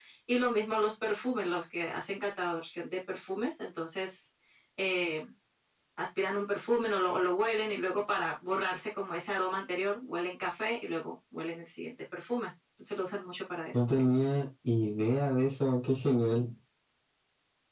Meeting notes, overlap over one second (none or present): none